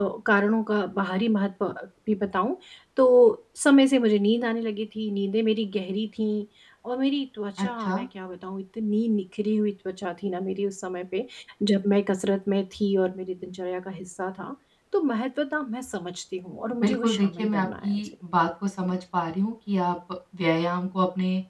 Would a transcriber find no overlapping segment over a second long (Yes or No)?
No